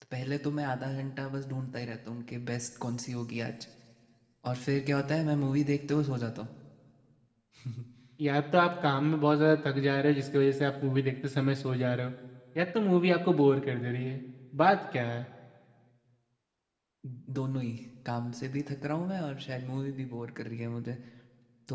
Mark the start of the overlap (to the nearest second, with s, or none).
none